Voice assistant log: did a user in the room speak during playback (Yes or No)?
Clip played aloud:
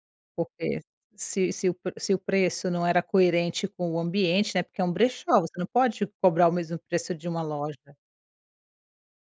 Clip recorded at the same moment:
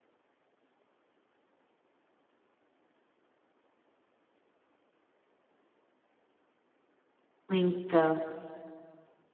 Yes